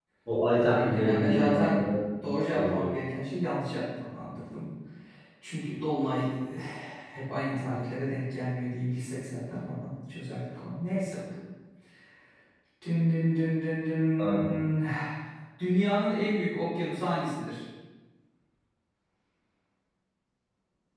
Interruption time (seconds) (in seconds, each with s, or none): 0.6 s